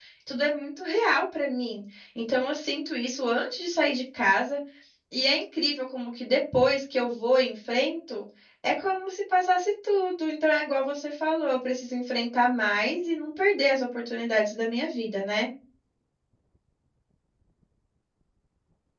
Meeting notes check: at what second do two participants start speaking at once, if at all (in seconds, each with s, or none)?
none